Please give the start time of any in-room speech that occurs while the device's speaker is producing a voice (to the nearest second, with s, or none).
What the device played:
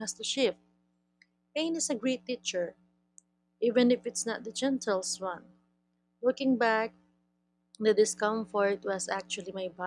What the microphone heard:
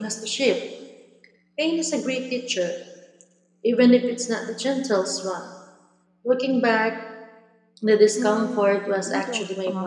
8 s